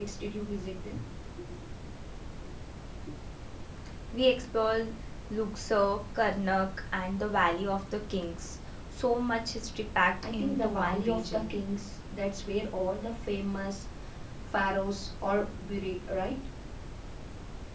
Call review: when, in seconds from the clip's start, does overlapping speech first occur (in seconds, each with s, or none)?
10.2 s